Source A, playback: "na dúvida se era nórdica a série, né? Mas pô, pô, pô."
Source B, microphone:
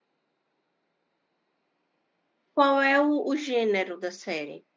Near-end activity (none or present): present